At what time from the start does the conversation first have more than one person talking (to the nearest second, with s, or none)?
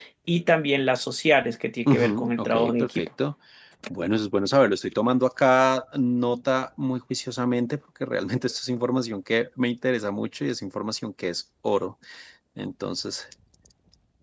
2 s